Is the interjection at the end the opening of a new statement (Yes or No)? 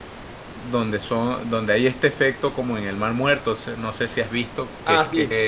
No